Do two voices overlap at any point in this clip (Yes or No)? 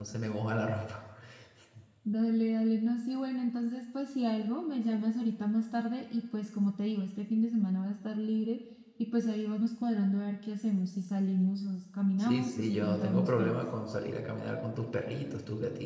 Yes